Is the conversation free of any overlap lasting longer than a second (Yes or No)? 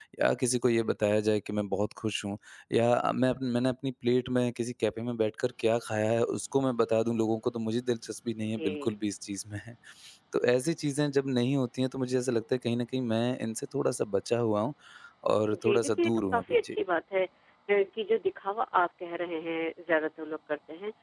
No